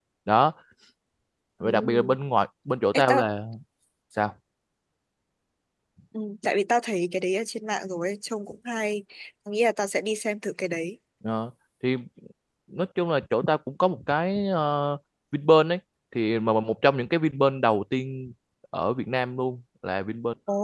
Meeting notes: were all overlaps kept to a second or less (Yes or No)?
Yes